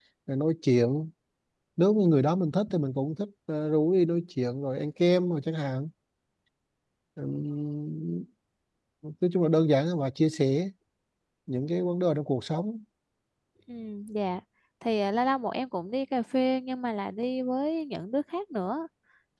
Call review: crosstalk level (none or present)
none